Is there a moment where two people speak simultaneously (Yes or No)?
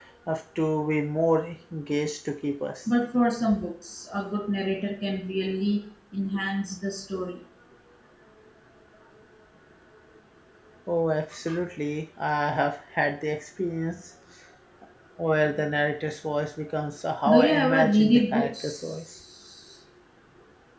Yes